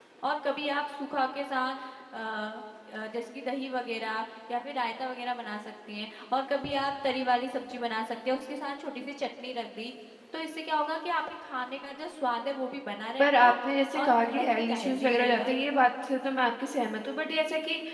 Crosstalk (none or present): present